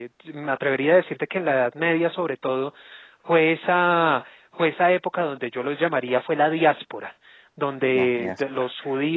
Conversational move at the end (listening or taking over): listening